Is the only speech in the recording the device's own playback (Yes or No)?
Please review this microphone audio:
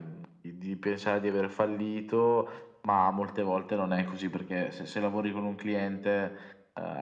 Yes